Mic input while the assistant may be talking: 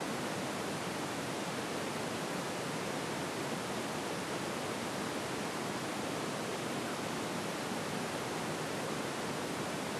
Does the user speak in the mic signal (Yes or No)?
No